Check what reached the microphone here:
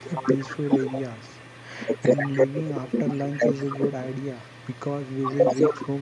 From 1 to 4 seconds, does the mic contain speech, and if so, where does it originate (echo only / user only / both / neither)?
both